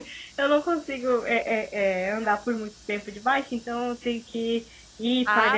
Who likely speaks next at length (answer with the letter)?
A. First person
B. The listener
B